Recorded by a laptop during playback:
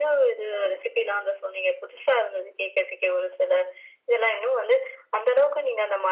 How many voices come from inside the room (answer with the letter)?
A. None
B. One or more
A